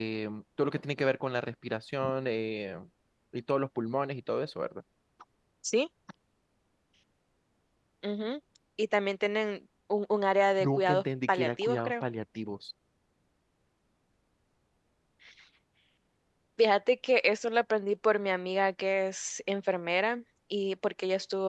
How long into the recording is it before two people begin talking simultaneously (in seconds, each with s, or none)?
10.6 s